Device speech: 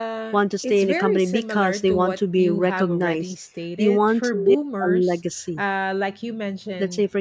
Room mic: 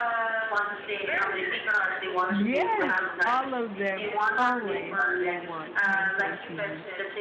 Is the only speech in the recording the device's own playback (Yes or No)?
No